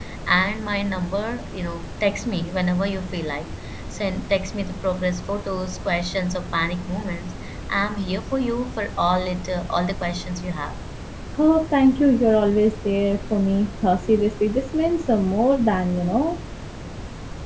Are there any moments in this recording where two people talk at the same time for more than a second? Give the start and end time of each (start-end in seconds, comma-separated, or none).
none